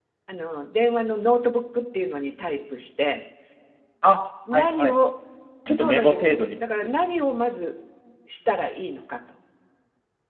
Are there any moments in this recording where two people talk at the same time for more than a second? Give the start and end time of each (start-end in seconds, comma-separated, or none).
5.7-6.9